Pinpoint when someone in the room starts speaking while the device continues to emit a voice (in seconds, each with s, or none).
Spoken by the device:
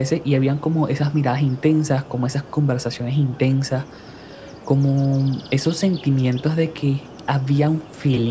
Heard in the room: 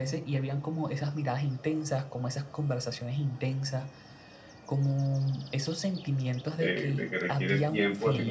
6.5 s